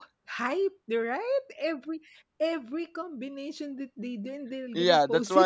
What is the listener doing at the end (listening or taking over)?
taking over